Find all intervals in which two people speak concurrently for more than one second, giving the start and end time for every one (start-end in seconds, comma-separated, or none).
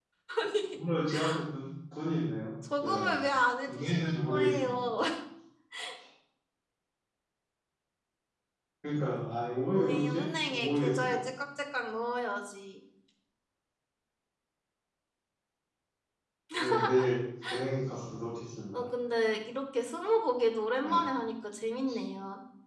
3.7-4.9, 9.7-11.2